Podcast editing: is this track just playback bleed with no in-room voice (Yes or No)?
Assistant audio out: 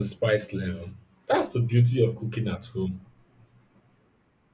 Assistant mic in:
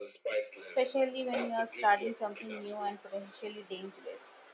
No